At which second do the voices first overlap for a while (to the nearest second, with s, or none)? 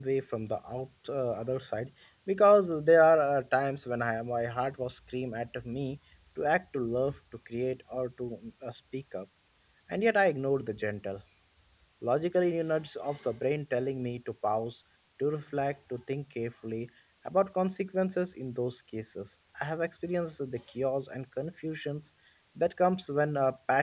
none